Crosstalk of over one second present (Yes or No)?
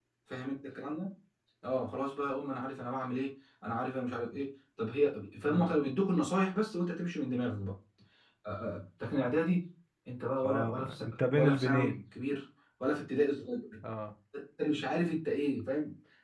Yes